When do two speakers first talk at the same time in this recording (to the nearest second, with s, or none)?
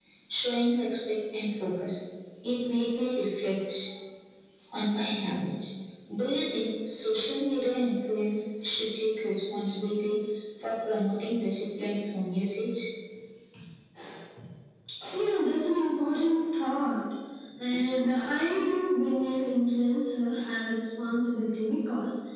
none